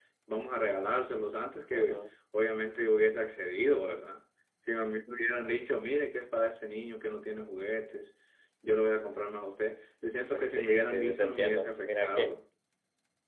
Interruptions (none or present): present